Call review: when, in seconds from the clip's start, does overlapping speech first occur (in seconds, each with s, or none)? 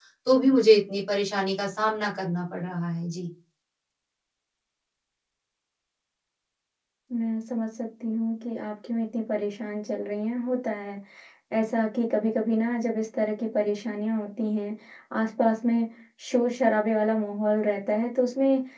none